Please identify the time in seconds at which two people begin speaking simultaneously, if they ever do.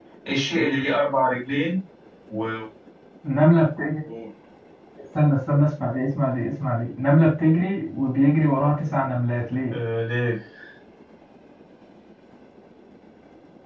none

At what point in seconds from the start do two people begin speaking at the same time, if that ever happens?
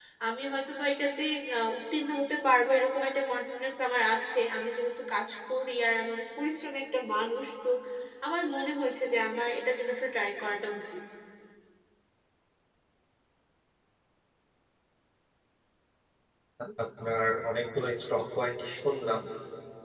none

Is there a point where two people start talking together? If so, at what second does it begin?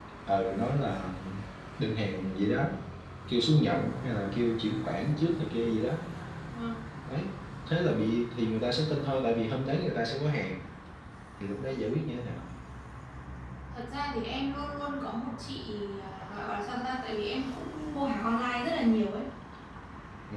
none

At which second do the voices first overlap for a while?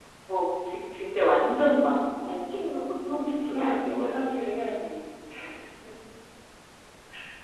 2.5 s

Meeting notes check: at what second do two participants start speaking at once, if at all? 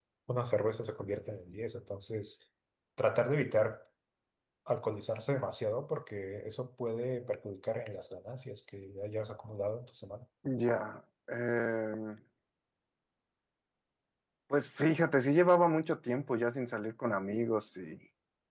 none

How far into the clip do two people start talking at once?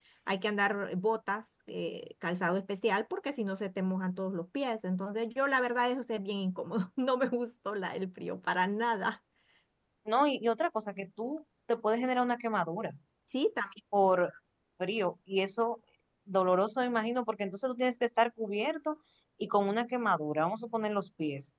none

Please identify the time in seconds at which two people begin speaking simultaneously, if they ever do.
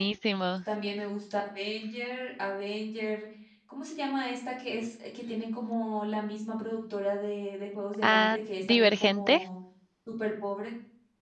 8.0 s

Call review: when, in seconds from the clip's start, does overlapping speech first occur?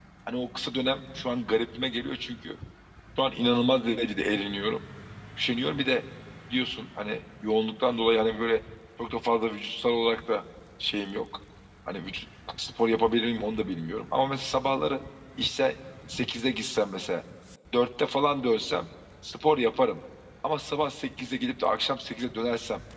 none

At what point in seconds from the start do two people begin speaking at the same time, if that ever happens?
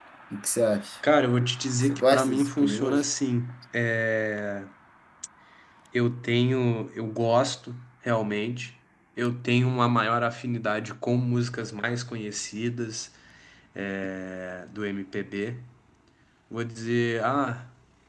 1.8 s

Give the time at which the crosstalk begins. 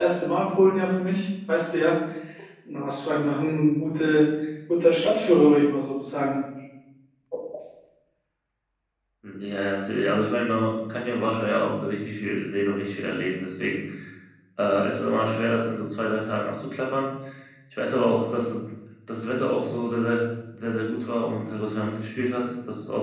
none

